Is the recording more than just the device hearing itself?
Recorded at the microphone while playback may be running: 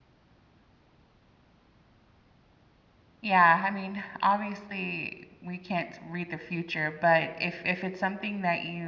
Yes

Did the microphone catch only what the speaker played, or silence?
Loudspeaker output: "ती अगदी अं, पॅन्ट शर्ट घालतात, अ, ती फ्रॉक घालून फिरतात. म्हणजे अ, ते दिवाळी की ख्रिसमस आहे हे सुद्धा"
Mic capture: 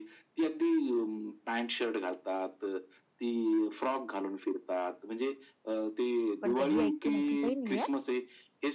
No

